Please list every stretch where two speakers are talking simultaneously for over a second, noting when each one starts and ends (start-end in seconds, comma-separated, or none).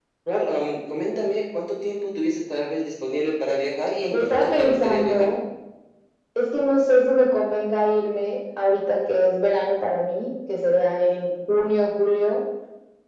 4.1-5.3